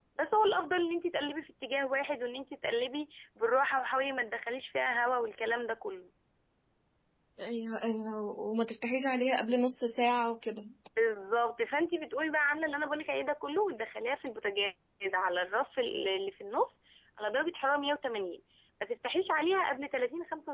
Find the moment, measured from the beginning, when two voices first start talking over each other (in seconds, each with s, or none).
none